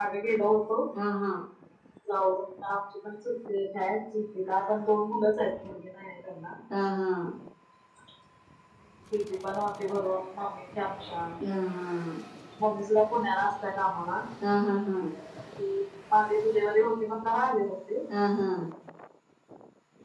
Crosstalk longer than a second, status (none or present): none